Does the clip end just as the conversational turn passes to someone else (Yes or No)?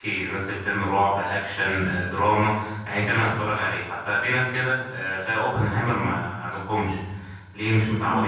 No